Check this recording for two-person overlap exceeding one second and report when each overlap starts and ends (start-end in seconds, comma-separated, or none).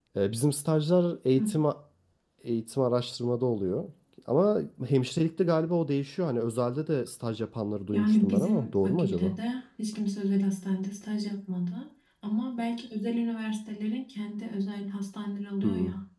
7.9-9.3